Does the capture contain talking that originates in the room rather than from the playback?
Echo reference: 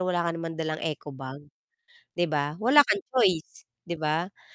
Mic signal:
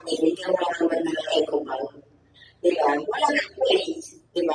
No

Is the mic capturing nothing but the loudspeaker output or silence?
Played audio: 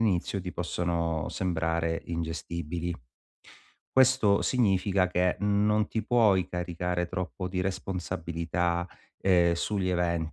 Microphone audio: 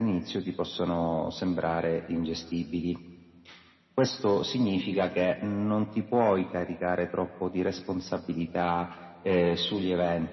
Yes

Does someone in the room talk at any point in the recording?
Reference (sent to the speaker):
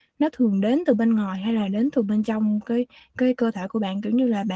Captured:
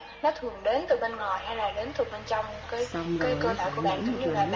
Yes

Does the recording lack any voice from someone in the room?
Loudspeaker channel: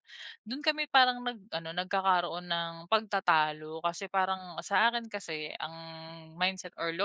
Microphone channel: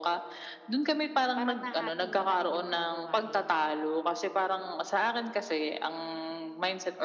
No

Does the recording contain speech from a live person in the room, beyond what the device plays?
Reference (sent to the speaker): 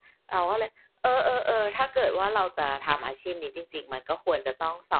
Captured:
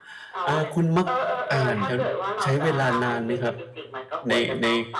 Yes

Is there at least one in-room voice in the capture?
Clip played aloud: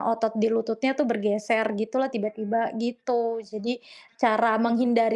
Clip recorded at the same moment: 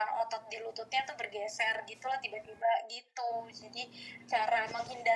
No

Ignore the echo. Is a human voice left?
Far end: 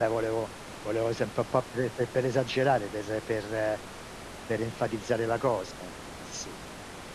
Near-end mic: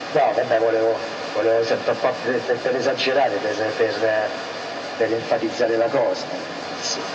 No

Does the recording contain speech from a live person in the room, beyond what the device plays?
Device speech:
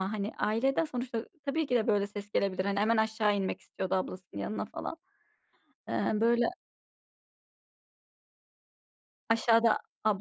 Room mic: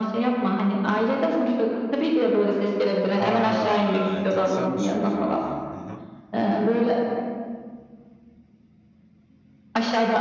Yes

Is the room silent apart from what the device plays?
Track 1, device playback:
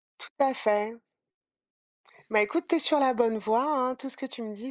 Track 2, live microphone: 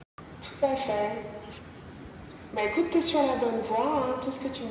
Yes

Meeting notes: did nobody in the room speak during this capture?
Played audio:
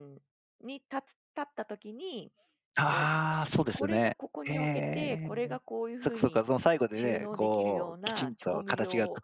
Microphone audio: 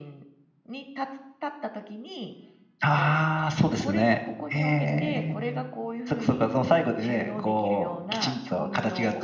Yes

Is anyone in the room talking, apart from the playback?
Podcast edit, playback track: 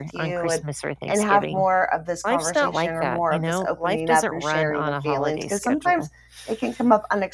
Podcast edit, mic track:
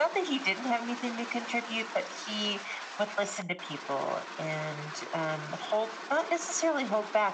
Yes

